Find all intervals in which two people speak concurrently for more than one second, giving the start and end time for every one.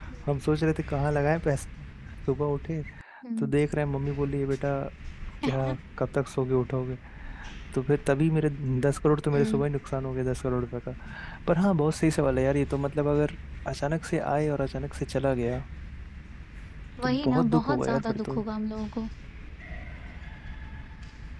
17.0-18.4

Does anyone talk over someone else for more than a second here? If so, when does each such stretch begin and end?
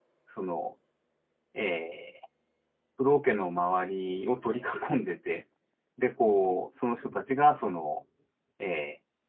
none

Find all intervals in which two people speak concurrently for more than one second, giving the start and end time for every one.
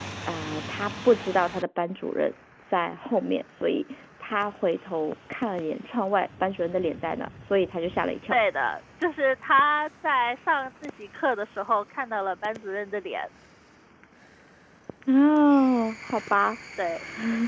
none

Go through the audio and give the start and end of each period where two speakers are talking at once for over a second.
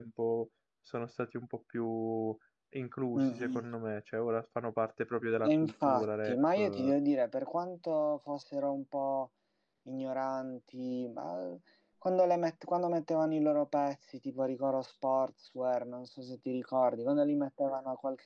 5.4-6.9

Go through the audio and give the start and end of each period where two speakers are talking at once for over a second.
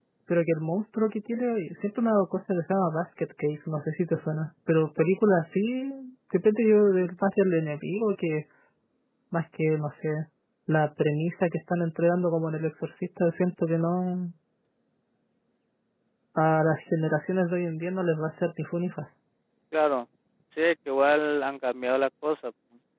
none

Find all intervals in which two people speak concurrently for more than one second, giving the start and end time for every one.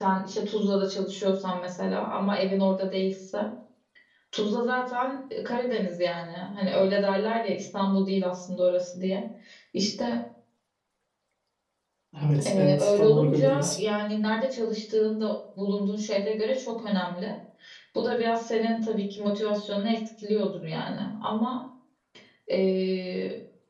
12.5-13.8

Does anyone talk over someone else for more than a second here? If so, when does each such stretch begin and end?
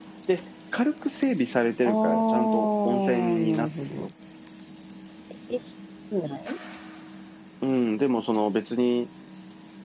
1.8-4.1

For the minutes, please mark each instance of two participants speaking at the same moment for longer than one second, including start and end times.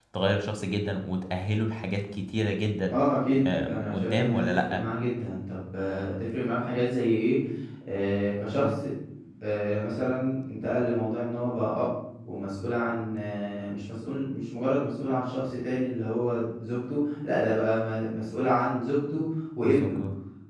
3.5-4.8

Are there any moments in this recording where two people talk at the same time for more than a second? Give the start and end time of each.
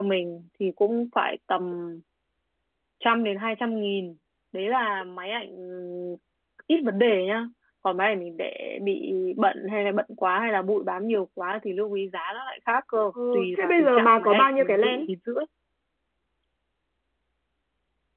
13.3-15.1

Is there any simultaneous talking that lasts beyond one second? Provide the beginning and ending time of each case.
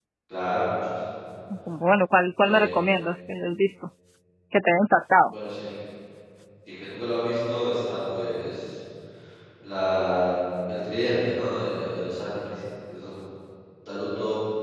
none

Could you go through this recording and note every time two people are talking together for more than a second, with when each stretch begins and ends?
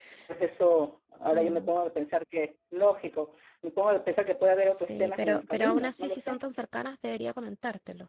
4.7-6.4

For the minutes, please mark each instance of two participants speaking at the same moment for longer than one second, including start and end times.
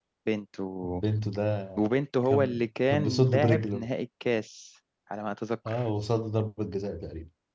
2.2-3.9

